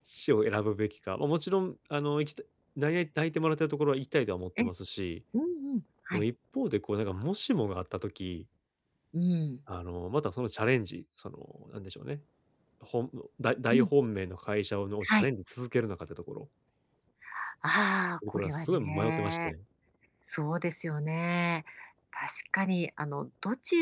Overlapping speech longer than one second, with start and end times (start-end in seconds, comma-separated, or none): 18.3-19.5